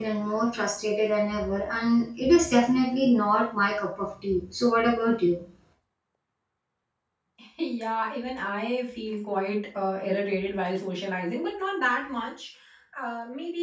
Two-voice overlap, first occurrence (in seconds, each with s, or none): none